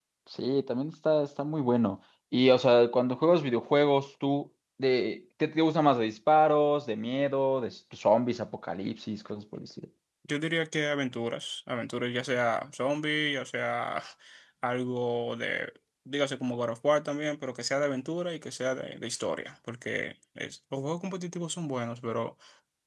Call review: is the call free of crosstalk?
Yes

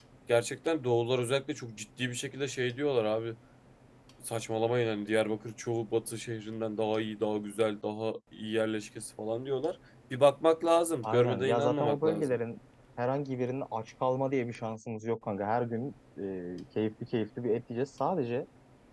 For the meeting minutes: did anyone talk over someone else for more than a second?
Yes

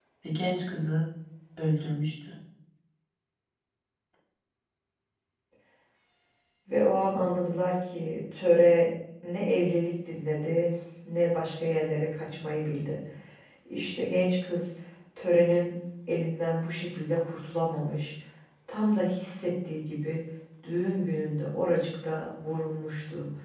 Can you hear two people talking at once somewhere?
No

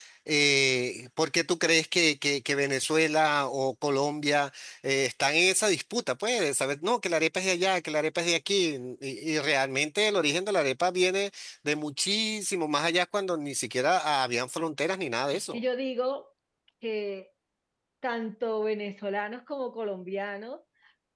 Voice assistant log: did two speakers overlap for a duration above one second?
No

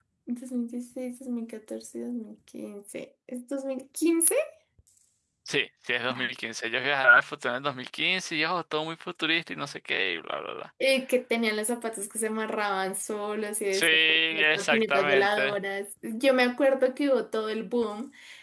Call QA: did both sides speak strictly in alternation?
No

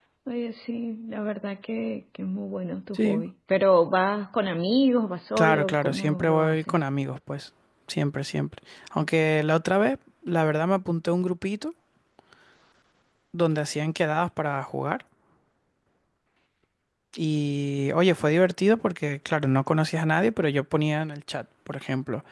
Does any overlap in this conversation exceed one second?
Yes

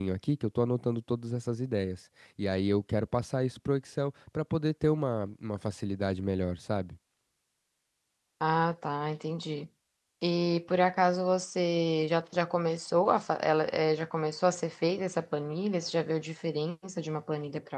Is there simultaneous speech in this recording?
No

